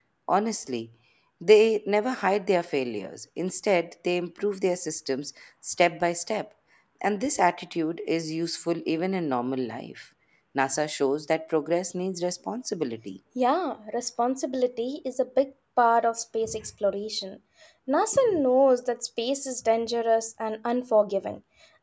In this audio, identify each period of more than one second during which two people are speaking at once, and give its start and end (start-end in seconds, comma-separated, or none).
none